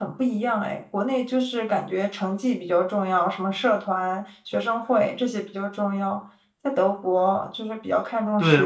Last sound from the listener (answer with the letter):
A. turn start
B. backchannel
A